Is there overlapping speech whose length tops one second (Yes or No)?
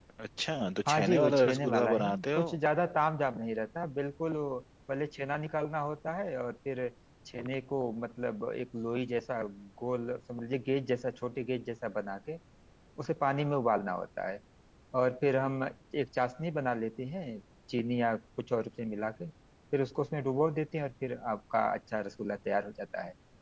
Yes